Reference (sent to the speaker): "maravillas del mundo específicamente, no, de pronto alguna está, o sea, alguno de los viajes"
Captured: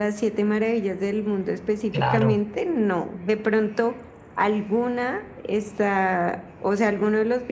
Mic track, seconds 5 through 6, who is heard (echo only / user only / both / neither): echo only